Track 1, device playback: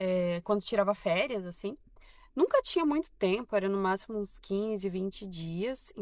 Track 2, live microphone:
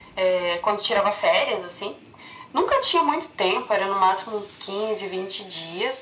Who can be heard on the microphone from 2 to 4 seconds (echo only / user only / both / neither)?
echo only